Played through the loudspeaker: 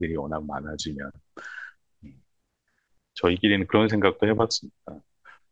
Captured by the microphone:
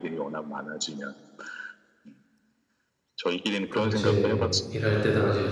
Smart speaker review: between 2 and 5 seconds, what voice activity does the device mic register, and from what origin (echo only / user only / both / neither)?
both